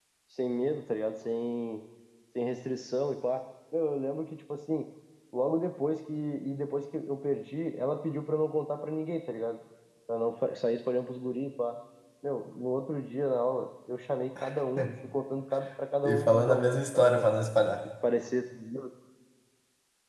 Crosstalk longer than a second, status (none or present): present